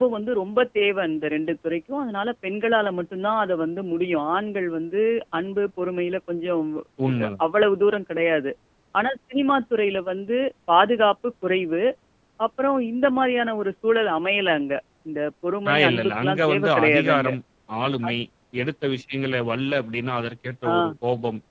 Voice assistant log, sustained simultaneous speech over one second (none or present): present